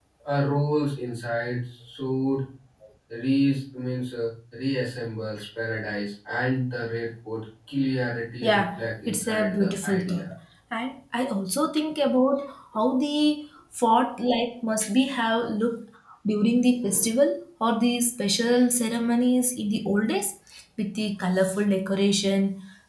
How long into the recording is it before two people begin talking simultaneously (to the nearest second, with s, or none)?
8 s